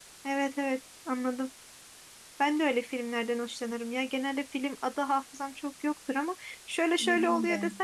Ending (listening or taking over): listening